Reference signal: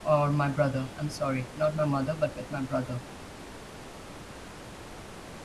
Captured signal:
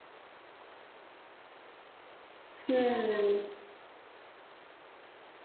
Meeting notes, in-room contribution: present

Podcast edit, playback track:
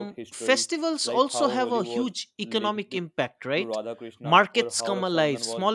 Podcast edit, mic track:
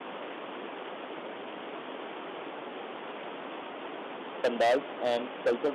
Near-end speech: present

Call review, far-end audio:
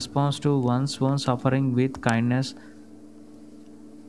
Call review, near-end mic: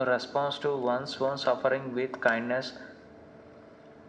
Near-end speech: none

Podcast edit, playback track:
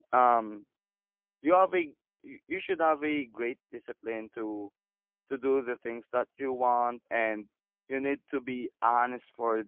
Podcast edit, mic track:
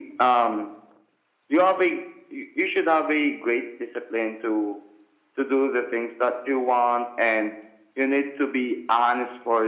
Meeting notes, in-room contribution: none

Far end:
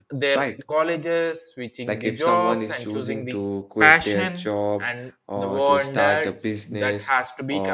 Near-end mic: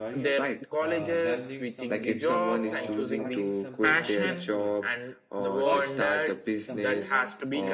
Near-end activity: present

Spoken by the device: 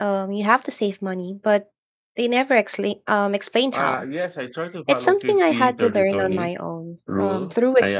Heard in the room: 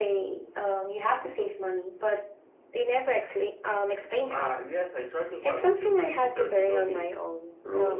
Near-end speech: none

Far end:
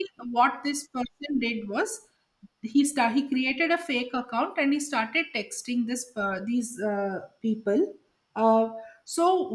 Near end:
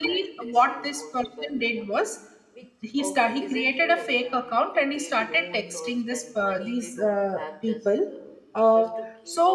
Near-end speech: present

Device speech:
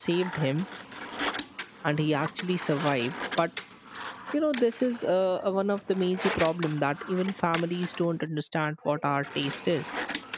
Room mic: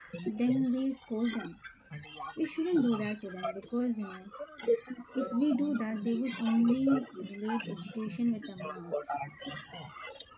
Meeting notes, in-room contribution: present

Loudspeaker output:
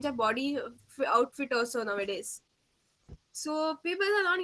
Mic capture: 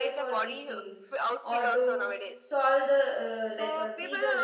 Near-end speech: present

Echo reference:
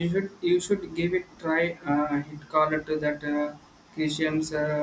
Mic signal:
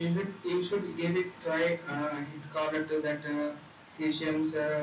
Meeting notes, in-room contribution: none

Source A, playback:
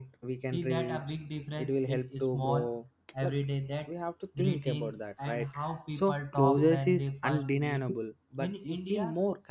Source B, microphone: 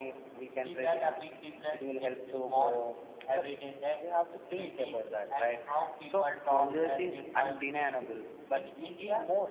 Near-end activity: none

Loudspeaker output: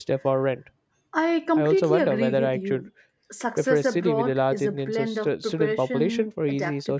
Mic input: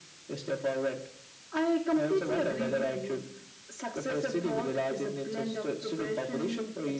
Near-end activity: none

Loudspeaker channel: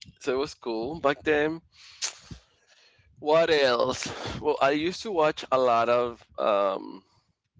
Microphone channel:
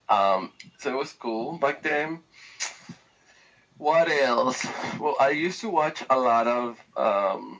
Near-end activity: none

